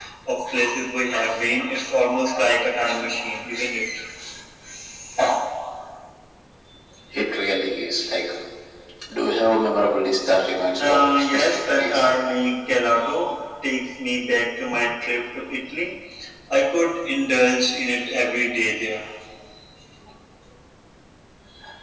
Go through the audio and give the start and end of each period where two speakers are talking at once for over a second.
10.8-12.1

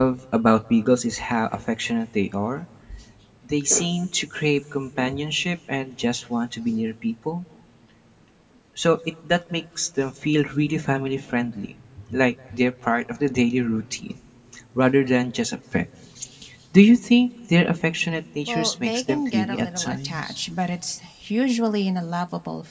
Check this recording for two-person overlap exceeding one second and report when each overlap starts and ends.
18.5-20.4

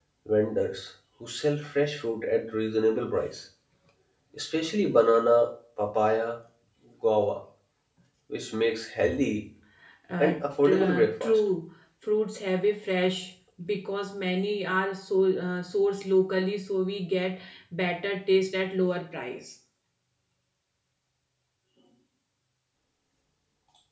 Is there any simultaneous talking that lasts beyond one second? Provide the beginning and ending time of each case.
10.2-11.4

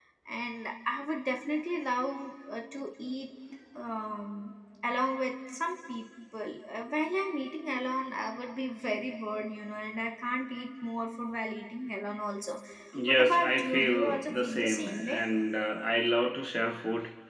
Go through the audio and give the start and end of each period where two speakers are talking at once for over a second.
13.1-15.2

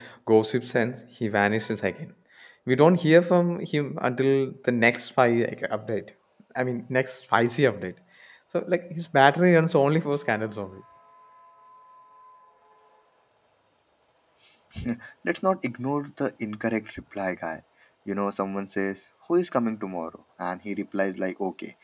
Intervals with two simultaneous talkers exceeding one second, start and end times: none

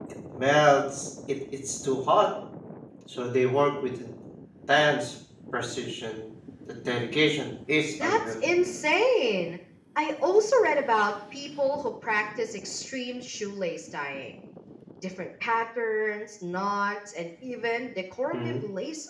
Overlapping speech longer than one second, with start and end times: none

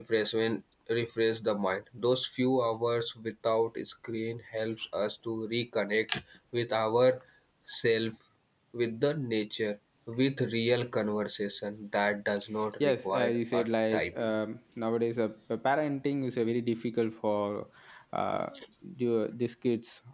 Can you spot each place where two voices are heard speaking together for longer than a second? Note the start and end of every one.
12.8-14.3

